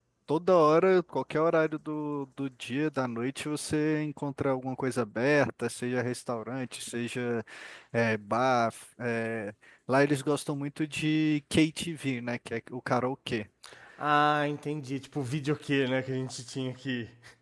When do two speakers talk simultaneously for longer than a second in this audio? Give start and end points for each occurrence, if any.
none

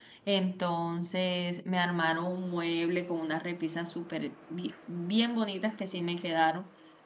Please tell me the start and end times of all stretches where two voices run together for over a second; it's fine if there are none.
none

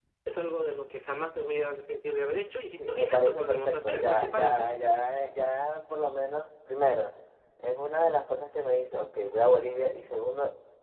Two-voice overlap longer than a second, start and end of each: 2.9-4.7

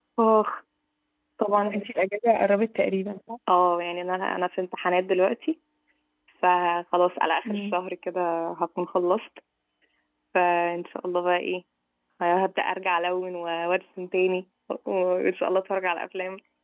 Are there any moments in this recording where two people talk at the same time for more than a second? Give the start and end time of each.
none

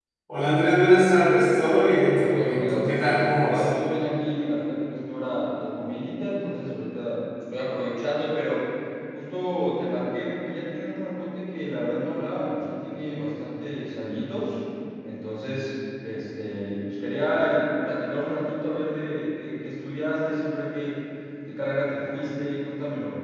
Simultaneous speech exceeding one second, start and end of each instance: 2.1-3.7

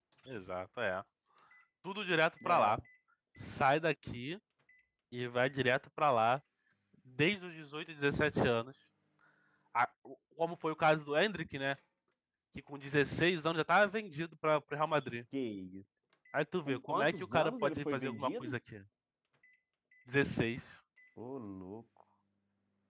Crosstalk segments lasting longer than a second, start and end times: 16.7-18.5

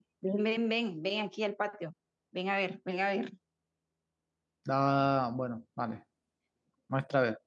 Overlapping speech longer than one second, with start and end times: none

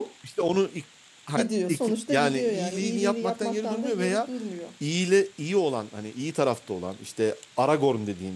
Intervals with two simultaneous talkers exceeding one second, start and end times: 1.4-4.3

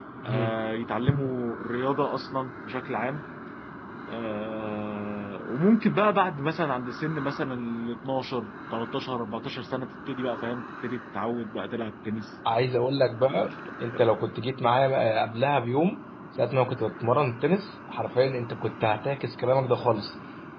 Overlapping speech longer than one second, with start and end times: none

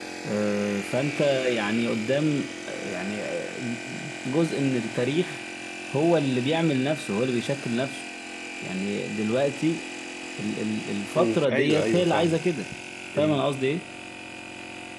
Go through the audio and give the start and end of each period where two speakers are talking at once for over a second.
11.1-12.4

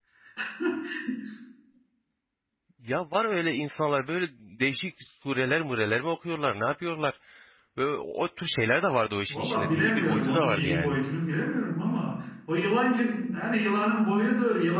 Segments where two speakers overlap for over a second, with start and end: 9.3-11.0

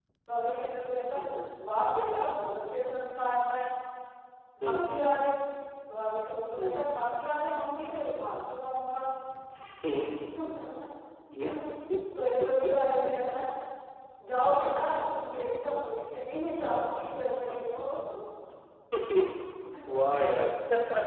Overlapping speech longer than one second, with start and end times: none

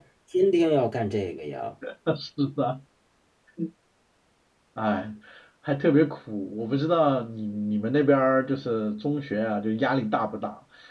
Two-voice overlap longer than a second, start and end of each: none

